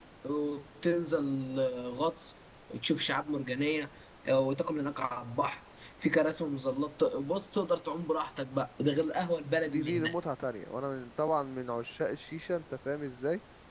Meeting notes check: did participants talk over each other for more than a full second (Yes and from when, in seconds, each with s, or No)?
No